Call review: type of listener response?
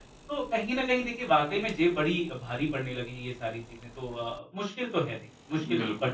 taking over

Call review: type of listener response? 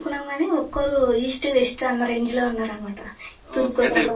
taking over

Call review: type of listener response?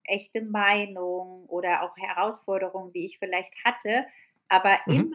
listening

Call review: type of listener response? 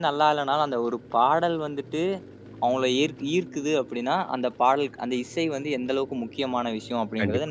taking over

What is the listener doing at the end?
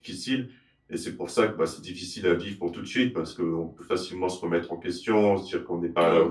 listening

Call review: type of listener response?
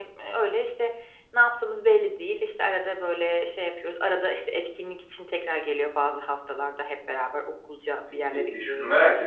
taking over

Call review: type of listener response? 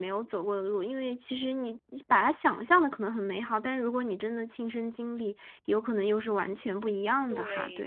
taking over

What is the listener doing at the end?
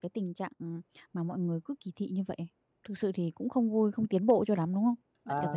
taking over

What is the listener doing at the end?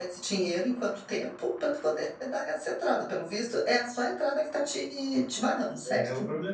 taking over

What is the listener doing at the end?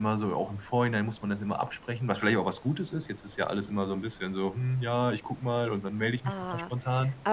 taking over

